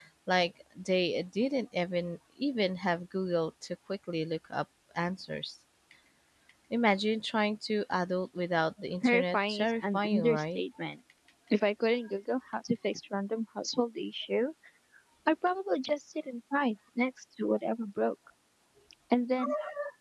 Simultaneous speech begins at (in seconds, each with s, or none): 9.0 s